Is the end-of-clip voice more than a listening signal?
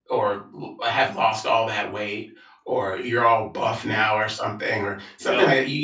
No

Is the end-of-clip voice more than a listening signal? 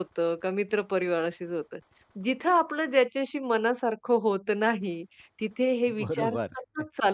No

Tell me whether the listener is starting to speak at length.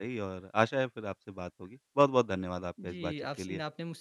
Yes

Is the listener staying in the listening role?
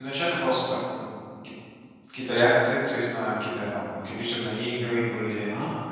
Yes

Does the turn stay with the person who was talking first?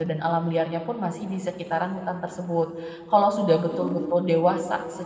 Yes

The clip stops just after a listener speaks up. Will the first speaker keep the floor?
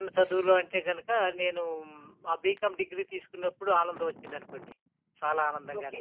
No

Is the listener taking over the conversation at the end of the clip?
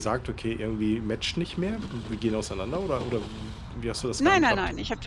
Yes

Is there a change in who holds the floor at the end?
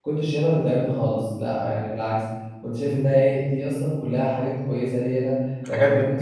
No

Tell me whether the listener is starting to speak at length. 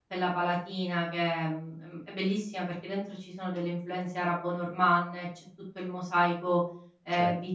Yes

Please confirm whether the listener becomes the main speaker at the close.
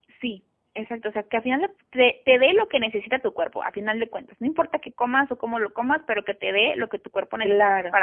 No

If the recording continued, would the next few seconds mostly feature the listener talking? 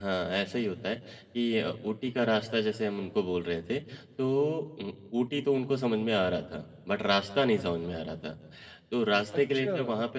No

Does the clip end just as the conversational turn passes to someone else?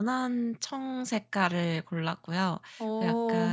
No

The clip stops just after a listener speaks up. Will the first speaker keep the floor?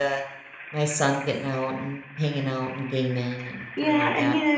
No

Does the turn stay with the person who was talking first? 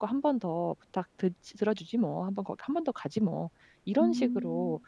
Yes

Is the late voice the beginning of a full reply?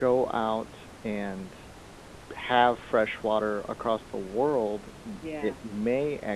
No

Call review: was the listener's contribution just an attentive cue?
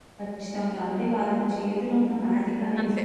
Yes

